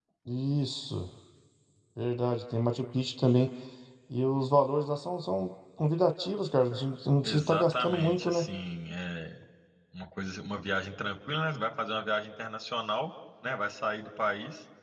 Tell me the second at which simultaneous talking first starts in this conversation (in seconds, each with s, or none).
7.2 s